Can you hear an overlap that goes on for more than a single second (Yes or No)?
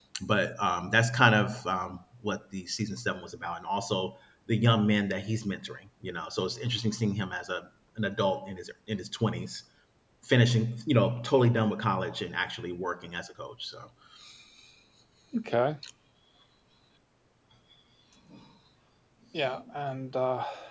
No